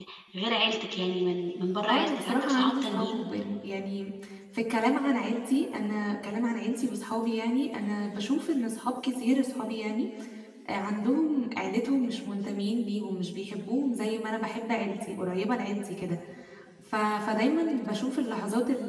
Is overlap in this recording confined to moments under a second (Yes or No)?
No